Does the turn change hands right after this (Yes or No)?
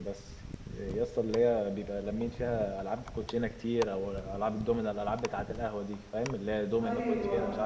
Yes